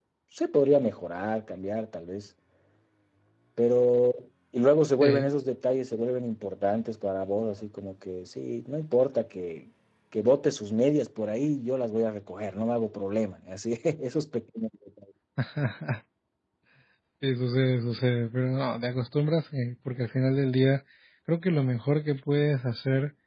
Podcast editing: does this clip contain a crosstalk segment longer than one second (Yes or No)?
No